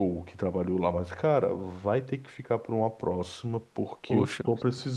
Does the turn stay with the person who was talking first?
Yes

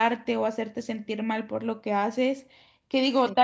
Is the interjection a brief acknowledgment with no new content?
Yes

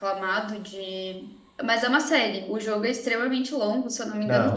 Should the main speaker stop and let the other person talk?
No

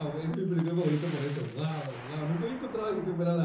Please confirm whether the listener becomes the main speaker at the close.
No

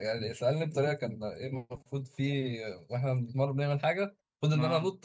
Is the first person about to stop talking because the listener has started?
No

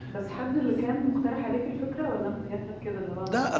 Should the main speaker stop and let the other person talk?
Yes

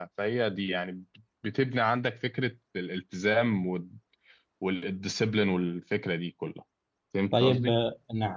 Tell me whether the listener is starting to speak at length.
Yes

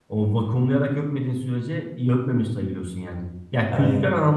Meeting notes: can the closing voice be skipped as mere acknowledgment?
Yes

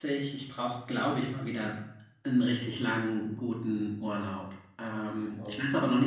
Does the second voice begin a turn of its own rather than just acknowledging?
No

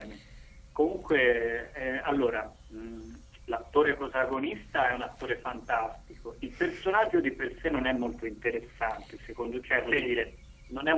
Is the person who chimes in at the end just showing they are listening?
Yes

